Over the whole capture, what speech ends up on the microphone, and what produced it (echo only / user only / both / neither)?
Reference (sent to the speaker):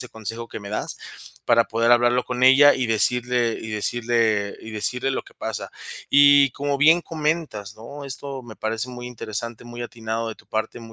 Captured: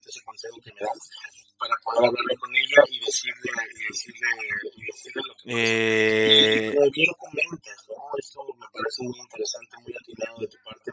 both